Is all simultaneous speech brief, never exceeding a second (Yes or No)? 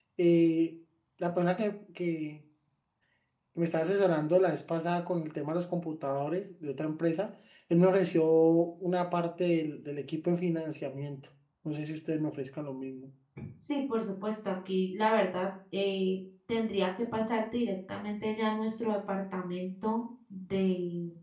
Yes